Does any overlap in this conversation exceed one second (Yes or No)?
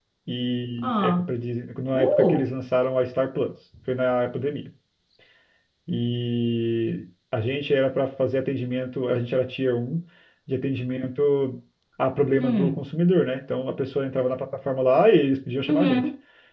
No